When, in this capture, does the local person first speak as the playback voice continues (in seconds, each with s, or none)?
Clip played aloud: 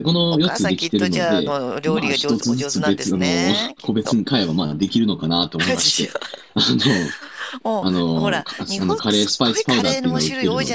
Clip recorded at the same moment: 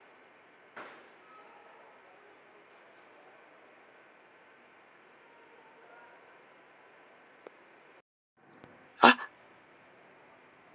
9.0 s